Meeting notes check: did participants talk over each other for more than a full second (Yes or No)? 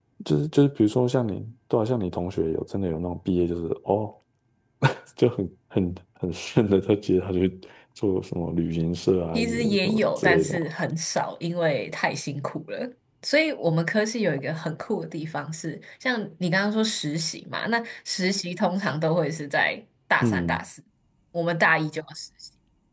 Yes